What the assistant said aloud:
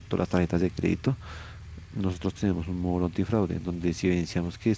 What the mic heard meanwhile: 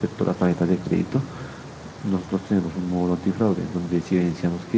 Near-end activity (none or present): none